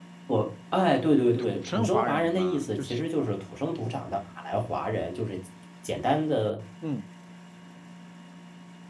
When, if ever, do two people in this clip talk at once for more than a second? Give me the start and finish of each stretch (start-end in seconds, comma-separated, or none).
1.4-3.0